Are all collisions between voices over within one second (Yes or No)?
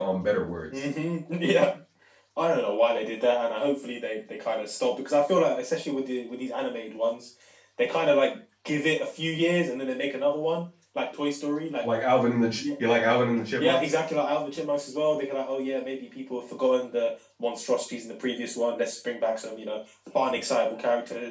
Yes